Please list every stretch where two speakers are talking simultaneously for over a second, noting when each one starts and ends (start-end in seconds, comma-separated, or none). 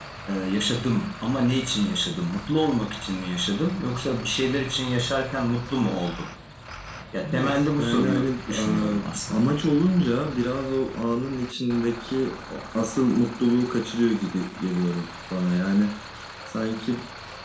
7.3-9.5